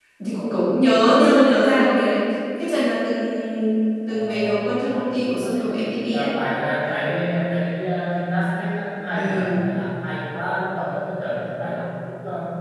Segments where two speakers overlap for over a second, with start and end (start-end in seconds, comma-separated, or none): 4.1-5.6